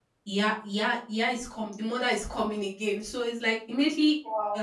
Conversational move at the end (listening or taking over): listening